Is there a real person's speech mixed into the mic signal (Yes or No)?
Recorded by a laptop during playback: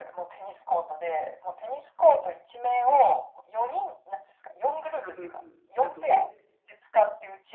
Yes